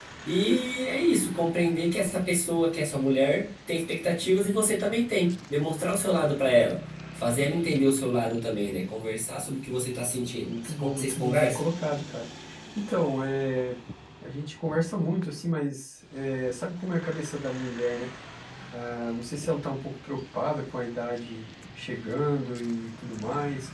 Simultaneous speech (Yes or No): Yes